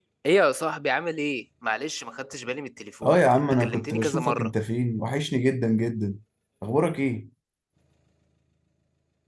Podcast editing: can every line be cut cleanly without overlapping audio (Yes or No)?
No